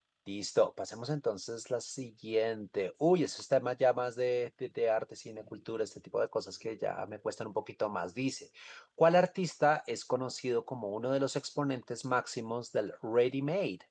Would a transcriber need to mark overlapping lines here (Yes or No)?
No